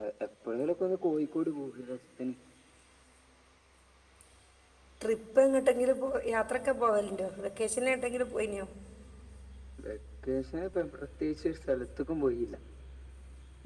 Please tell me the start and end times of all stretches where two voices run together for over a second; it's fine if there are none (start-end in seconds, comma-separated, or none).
none